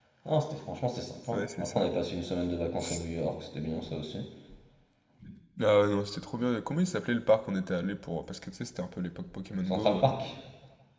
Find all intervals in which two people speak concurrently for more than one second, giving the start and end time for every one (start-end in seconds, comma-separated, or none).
none